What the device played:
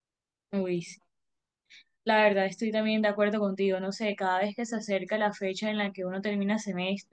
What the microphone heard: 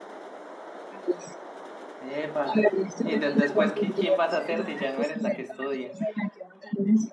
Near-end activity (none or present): present